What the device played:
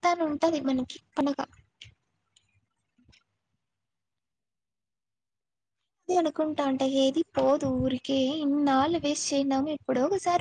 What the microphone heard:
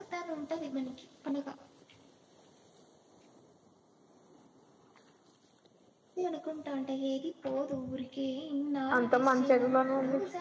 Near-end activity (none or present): present